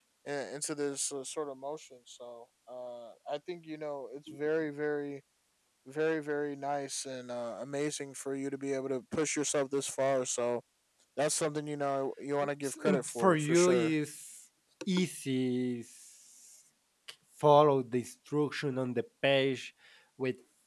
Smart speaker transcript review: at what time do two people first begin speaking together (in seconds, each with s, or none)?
12.6 s